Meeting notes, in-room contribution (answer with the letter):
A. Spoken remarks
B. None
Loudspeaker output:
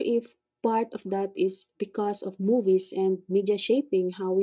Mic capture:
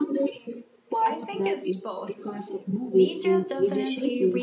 A